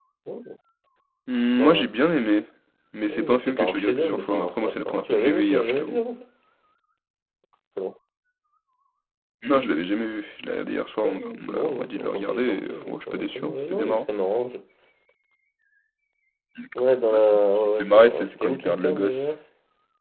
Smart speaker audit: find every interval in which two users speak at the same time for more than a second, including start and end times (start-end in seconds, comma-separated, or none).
3.0-6.0, 11.0-14.1, 17.1-19.3